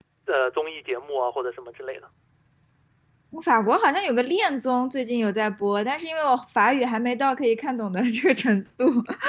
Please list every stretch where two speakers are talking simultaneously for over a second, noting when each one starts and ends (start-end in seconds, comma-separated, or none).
none